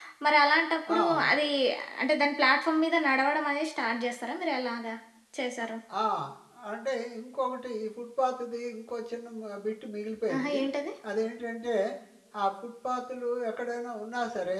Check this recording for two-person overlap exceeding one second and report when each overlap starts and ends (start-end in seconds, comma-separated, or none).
none